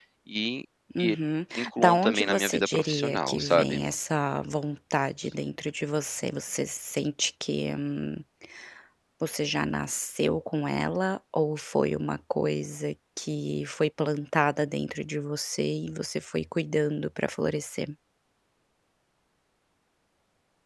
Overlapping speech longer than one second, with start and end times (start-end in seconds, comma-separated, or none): 1.6-3.8